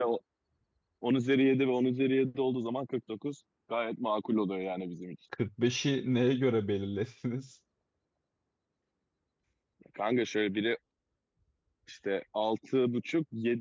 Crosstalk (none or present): none